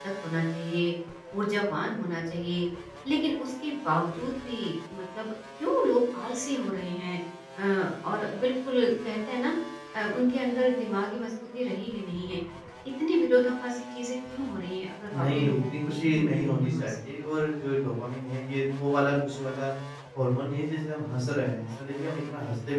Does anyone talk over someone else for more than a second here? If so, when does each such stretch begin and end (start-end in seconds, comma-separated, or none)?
15.2-17.0